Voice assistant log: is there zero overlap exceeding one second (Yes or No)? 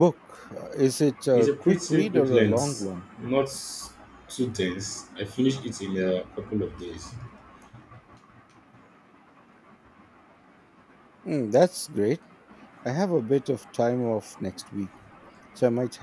No